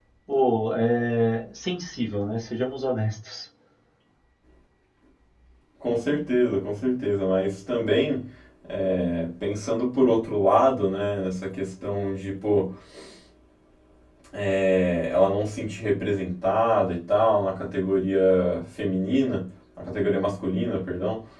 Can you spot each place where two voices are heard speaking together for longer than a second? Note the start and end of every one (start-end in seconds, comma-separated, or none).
none